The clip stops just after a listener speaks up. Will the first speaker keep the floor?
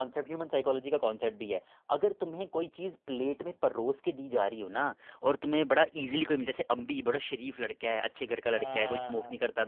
Yes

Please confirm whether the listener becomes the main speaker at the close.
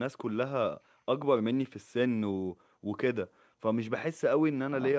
No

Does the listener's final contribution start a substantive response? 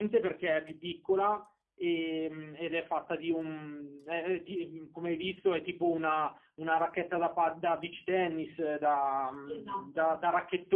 No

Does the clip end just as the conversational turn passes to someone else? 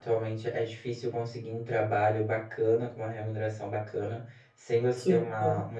No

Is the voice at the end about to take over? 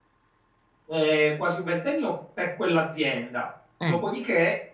No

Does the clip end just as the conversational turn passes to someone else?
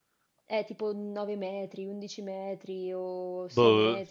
Yes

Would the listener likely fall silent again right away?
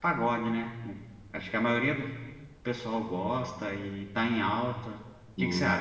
No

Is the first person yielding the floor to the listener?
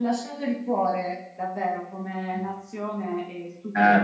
Yes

